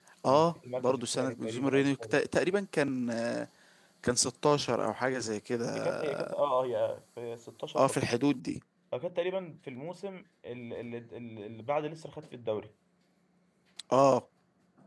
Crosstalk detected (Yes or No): Yes